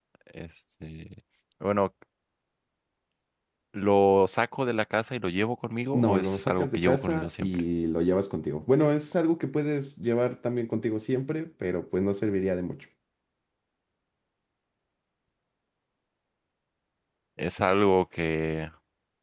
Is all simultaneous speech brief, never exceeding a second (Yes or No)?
No